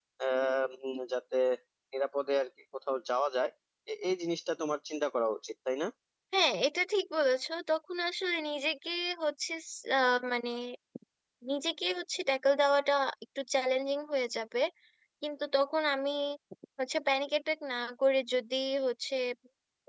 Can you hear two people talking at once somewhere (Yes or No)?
No